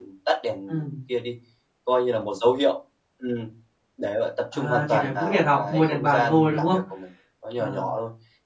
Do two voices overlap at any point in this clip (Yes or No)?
Yes